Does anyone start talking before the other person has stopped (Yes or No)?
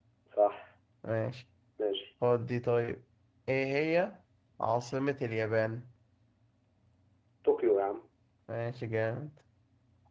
No